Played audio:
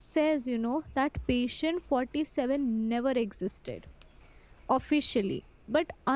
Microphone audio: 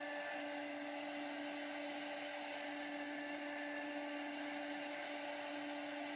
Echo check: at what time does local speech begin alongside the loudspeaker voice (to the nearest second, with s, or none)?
none